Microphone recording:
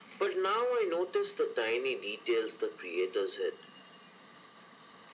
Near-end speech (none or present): none